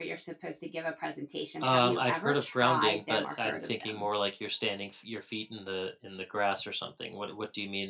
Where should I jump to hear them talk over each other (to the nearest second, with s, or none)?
2 s